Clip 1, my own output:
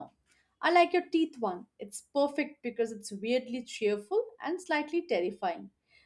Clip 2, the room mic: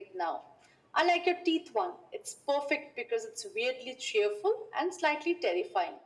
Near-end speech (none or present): none